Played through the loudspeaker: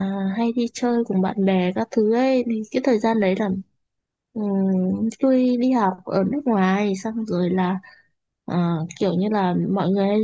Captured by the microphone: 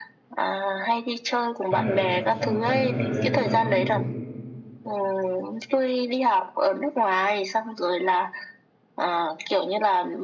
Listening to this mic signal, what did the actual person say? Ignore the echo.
sao vậy sau sau cái thời gian đó là uống rượu

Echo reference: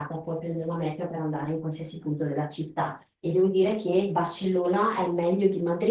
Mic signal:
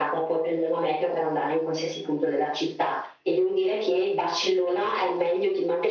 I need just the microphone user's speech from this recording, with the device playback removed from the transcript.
none

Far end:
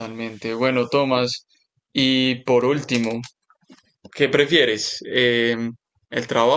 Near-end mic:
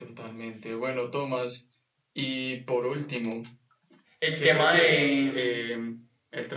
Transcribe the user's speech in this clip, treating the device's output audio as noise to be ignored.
el tema de, mm,

